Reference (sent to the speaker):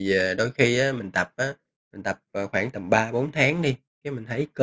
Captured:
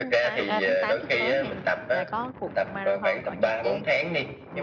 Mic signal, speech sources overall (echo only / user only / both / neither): both